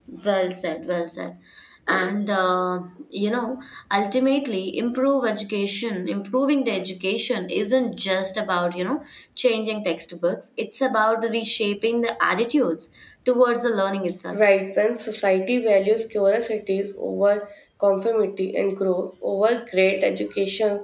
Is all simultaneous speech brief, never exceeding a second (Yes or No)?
Yes